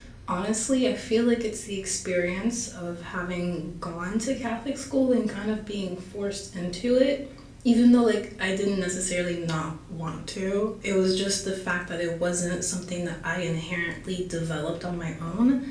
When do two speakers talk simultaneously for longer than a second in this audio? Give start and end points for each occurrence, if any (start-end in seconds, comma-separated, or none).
none